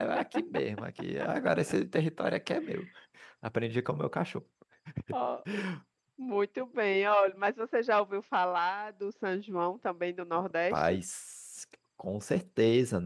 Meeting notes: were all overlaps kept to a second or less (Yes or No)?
Yes